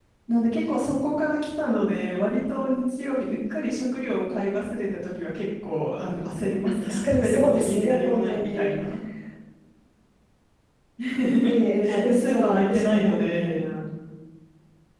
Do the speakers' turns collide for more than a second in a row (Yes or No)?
Yes